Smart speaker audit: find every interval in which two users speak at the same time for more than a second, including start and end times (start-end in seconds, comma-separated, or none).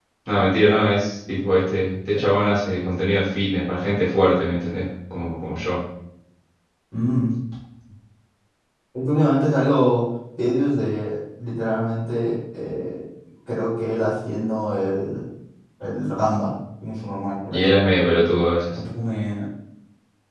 none